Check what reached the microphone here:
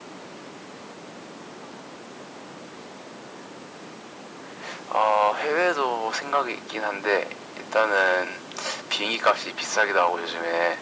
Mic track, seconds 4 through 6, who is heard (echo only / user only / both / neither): echo only